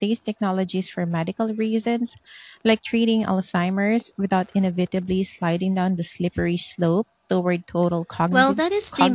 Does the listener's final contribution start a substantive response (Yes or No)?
Yes